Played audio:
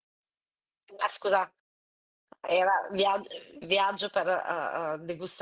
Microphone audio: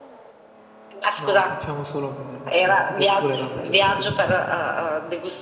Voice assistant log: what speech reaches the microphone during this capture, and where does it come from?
both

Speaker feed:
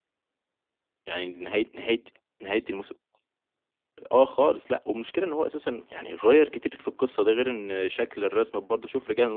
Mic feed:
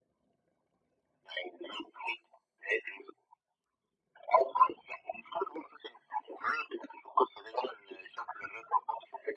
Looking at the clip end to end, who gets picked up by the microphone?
echo only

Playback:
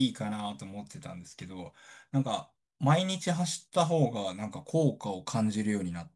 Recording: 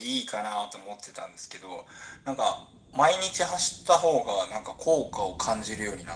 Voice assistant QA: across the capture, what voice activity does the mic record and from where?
echo only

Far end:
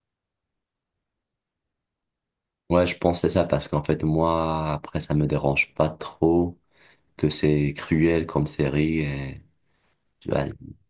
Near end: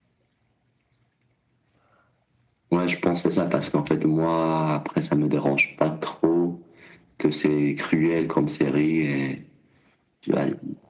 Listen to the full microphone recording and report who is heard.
echo only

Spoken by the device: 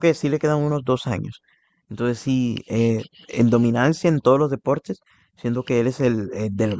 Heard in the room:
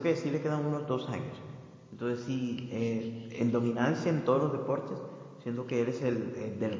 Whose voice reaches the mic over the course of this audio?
echo only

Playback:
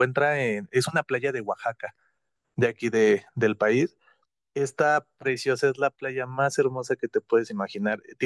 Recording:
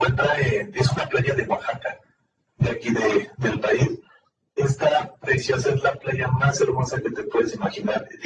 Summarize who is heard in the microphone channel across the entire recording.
echo only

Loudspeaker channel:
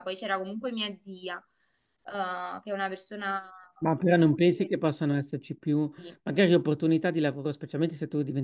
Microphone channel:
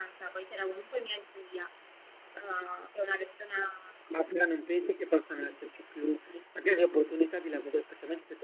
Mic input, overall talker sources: echo only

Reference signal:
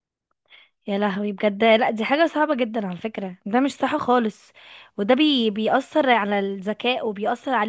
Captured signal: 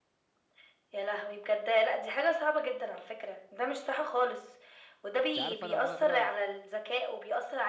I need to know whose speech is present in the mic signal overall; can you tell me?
both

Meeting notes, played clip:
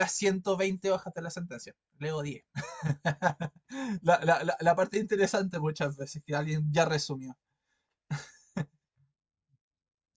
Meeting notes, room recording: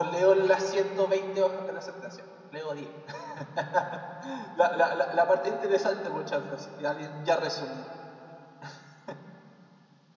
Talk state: echo only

